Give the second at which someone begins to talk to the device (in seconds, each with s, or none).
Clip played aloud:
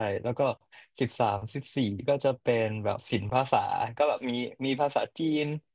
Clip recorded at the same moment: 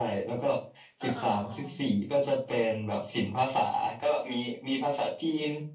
1.0 s